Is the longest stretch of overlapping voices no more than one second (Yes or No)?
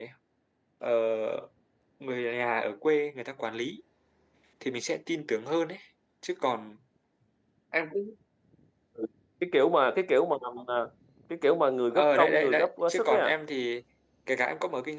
No